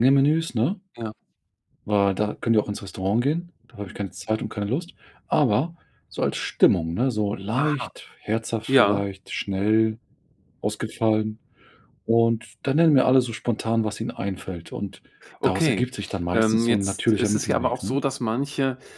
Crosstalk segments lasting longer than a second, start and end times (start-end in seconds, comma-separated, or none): 16.3-18.0